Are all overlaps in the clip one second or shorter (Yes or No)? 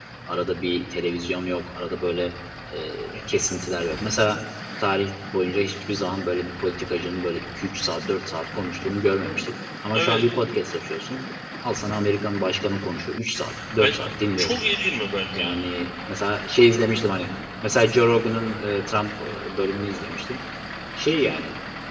Yes